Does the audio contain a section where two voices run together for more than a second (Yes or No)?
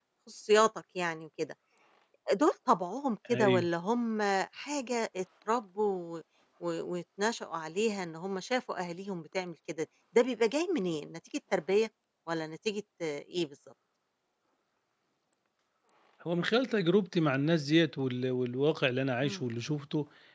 No